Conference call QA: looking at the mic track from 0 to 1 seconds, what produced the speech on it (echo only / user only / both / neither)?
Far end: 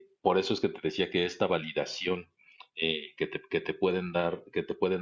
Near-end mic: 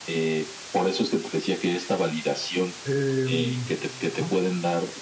echo only